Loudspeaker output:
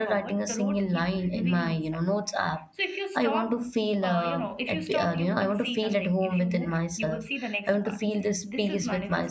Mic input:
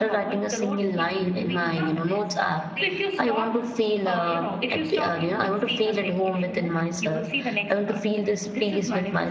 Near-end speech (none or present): present